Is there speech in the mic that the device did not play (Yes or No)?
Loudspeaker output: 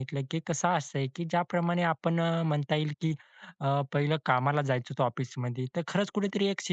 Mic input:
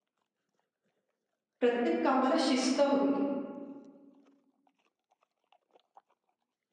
Yes